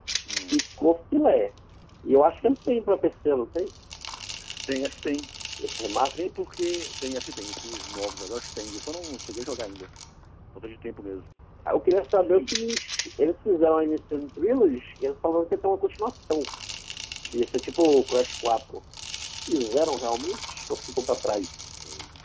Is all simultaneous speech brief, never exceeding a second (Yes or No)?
Yes